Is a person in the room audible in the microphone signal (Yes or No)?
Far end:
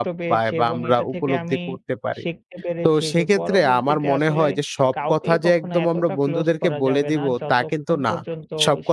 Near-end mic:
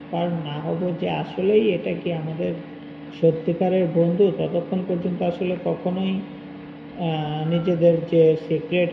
Yes